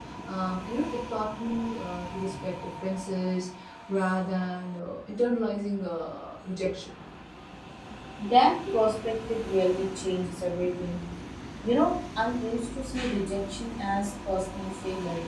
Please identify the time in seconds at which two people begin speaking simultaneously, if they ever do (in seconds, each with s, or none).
none